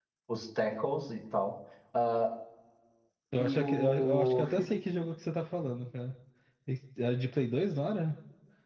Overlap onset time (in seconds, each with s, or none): 3.4 s